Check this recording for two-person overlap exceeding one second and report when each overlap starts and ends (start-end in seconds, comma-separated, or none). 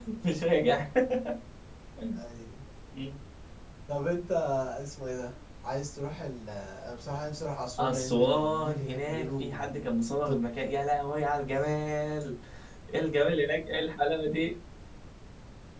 7.8-9.7